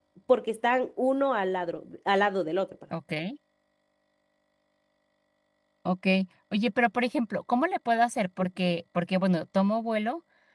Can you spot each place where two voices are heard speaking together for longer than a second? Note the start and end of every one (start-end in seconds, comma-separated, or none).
none